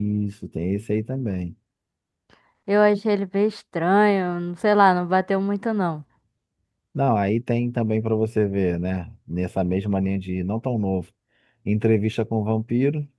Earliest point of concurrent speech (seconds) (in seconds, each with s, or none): none